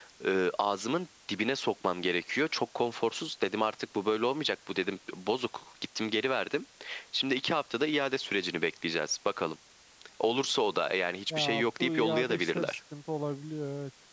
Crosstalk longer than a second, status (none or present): present